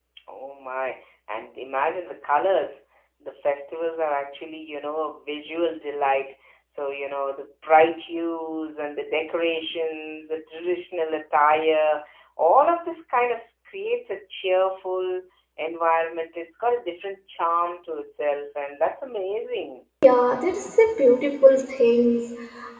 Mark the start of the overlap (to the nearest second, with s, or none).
none